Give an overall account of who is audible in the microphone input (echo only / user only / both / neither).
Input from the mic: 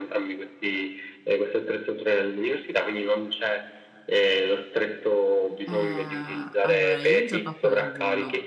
both